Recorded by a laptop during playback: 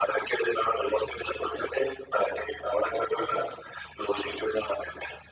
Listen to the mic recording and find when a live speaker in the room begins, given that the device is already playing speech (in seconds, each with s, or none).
none